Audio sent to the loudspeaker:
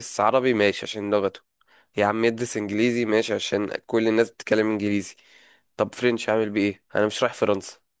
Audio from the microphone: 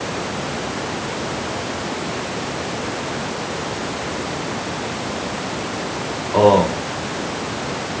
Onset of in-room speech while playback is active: 6.3 s

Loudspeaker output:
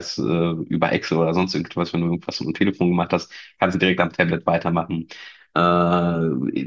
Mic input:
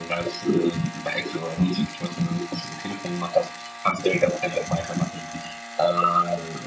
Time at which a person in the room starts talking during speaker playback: none

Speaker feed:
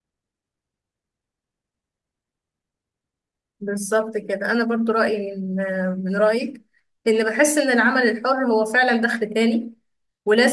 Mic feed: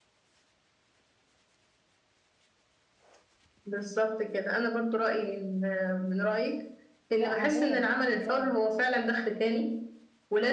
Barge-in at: 7.2 s

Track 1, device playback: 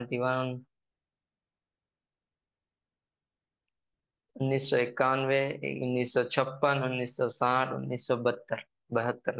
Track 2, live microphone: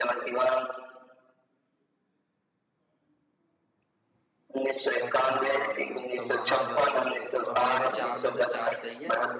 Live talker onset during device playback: 5.0 s

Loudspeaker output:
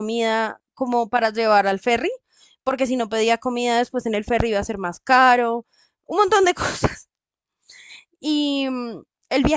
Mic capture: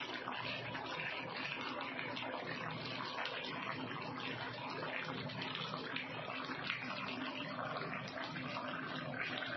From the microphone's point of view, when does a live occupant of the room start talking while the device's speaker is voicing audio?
none

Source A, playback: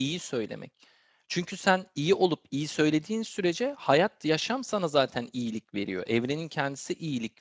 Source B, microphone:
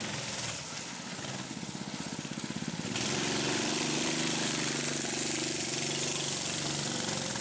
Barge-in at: none

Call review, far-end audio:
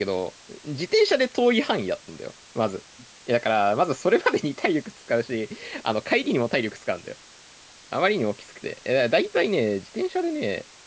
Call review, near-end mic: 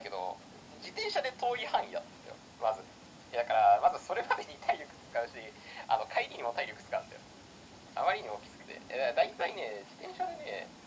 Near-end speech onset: none

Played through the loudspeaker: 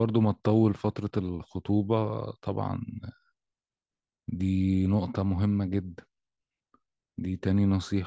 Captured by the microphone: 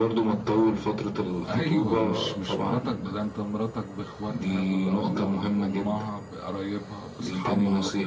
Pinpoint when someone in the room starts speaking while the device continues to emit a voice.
1.5 s

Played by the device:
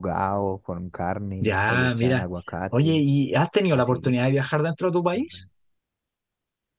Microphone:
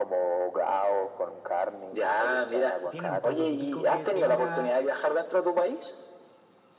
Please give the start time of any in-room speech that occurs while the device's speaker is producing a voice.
2.9 s

